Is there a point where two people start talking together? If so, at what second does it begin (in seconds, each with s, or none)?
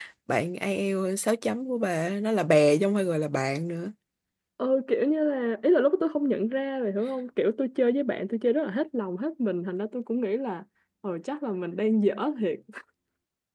none